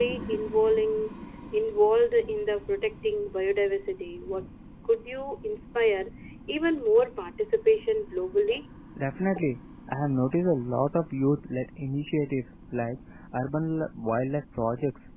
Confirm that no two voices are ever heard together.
Yes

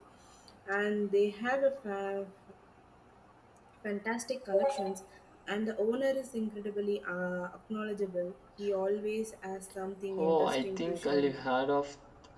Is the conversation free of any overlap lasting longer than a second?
No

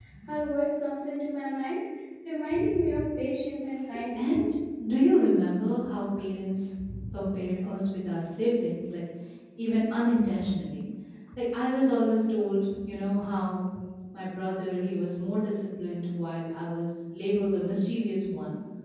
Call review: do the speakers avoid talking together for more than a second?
Yes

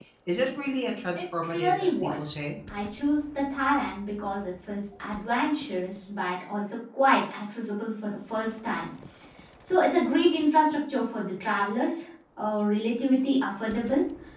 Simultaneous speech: Yes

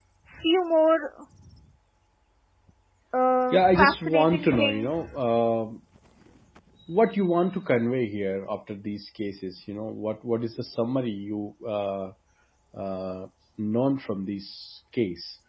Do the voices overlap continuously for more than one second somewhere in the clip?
Yes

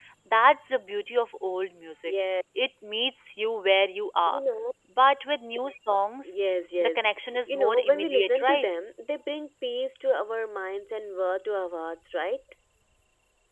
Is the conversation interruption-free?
No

